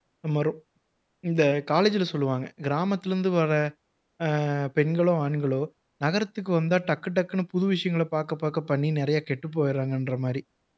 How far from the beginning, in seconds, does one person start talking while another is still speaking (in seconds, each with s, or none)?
none